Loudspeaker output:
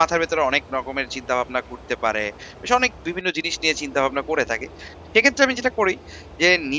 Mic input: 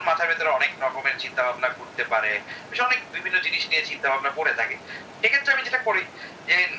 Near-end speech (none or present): none